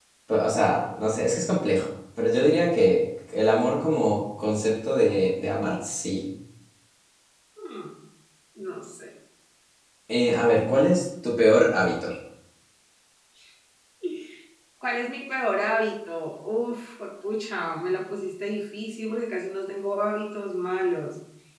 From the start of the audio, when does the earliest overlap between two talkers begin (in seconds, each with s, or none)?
none